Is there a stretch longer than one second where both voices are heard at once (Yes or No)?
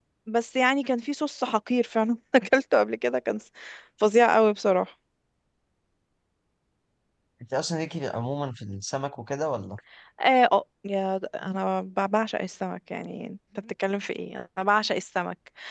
No